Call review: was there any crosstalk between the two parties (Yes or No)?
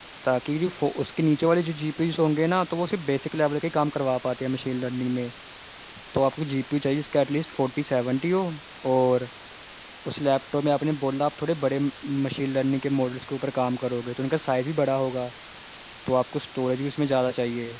No